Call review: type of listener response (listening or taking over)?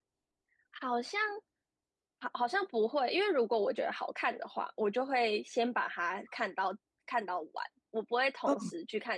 listening